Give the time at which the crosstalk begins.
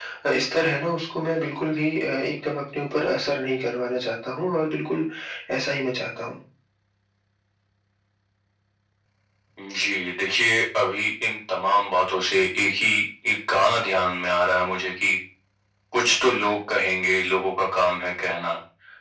none

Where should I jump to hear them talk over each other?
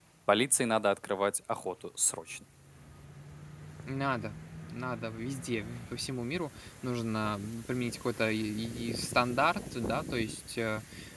none

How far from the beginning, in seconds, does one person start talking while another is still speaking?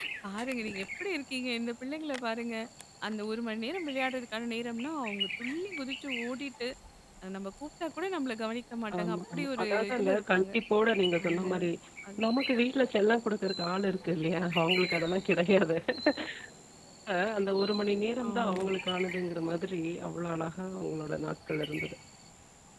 9 s

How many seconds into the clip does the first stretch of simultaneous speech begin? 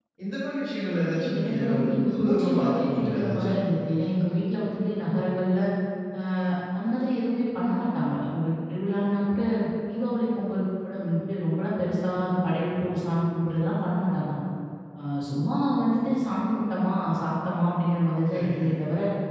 1 s

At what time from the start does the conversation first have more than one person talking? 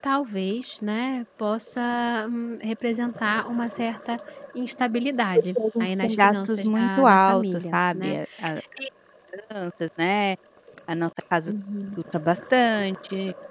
5 s

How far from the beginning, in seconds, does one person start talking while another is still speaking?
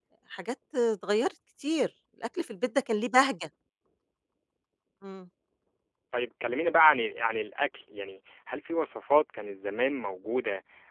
none

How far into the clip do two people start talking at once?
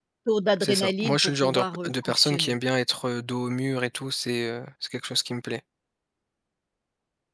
1 s

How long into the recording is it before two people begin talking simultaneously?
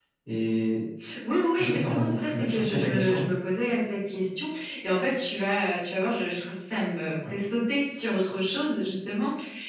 2 s

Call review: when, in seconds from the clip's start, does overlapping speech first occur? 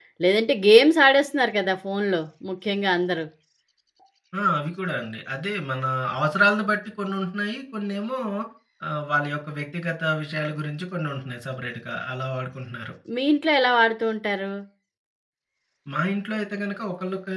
none

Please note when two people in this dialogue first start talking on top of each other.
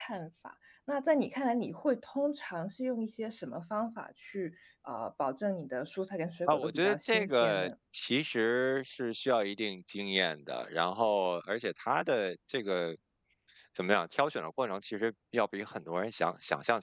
6 s

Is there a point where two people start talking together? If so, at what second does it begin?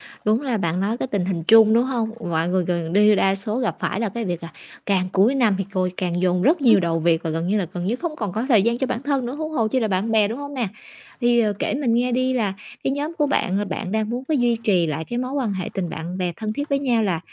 none

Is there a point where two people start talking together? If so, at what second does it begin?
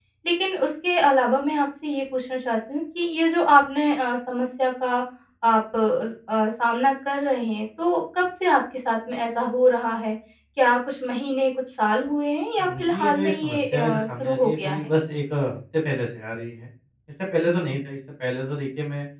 13 s

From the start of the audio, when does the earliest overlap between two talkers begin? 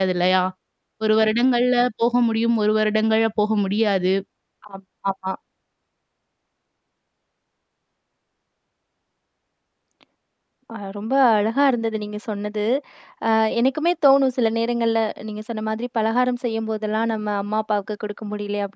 none

